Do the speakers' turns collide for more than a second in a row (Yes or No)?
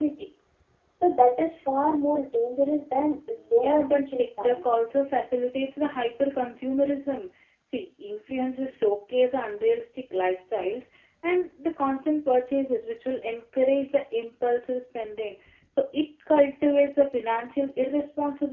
Yes